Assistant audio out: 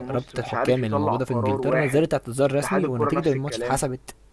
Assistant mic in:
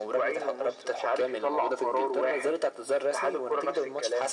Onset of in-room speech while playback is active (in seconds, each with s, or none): none